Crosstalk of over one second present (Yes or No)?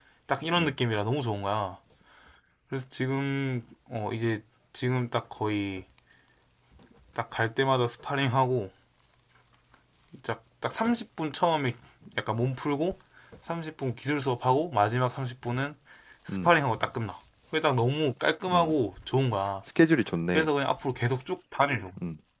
No